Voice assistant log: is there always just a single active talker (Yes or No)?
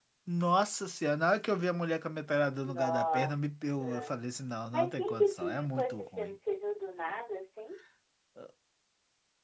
No